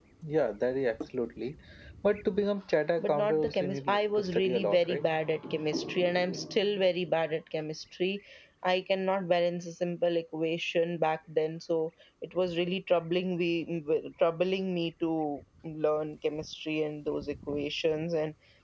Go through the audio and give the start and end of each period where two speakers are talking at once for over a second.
3.0-5.0

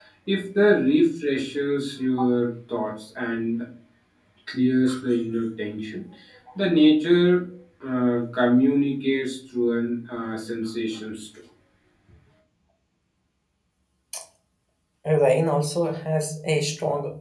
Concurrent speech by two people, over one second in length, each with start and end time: none

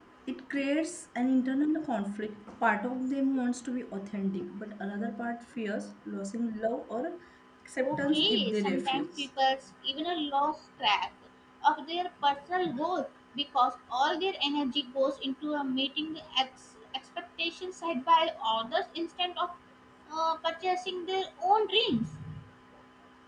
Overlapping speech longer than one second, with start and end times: 7.8-9.3

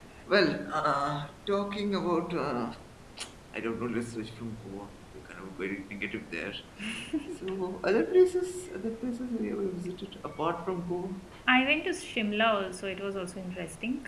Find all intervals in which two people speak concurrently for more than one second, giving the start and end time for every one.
none

